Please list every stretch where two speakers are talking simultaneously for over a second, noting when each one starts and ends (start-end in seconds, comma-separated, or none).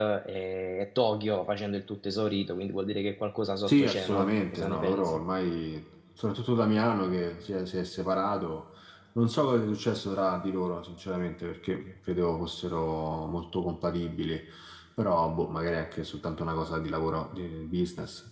3.7-5.2